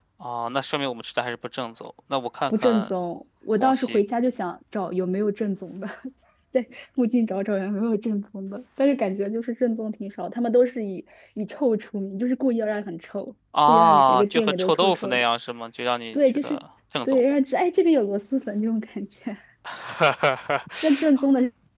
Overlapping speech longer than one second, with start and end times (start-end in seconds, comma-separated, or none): 13.7-15.2